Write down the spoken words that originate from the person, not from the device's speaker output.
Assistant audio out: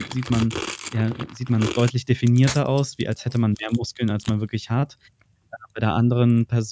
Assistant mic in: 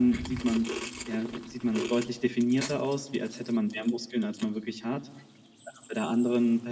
none

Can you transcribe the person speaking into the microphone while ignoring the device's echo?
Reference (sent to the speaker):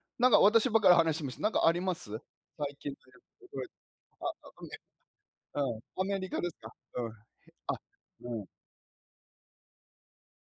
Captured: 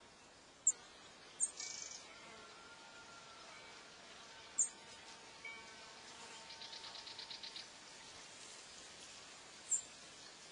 none

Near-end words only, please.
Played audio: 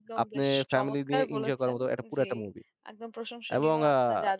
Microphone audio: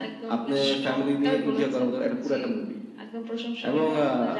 none

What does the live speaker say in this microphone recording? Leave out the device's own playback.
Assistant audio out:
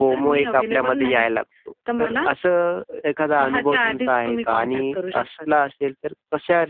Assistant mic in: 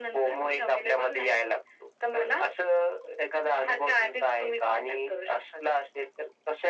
none

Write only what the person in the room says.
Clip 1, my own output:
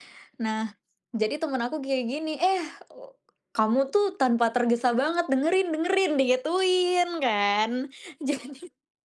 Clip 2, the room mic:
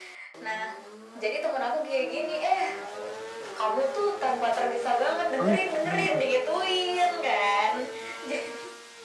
Oh, it benar.

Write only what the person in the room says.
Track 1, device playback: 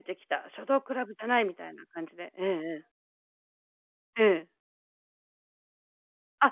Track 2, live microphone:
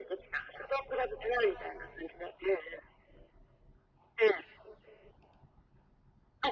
none

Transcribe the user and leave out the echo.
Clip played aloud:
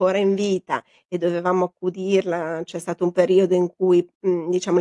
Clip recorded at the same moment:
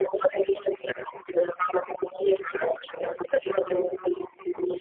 none

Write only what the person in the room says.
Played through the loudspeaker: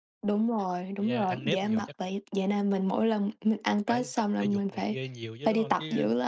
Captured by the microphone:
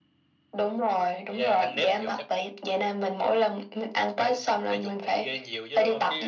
none

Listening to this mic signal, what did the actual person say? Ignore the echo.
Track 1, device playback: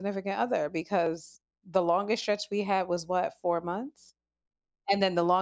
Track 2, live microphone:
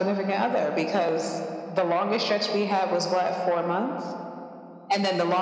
none

